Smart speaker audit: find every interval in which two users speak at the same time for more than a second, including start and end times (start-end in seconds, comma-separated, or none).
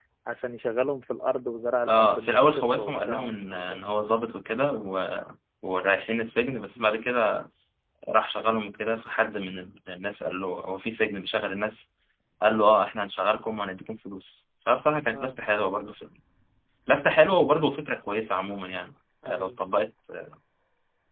1.9-3.8